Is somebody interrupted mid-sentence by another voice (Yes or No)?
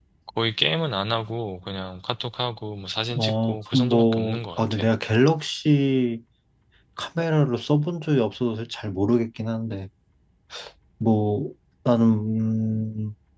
Yes